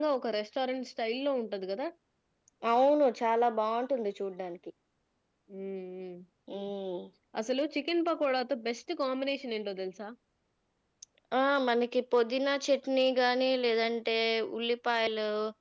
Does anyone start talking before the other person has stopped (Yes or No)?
No